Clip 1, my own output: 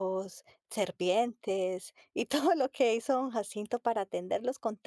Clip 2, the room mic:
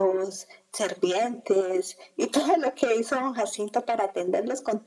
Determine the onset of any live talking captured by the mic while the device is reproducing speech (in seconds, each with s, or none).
none